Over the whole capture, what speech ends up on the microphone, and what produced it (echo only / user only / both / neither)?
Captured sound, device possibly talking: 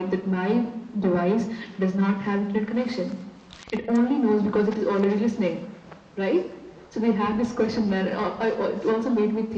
echo only